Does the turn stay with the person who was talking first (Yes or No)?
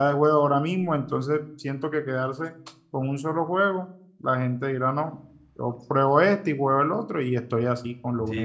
No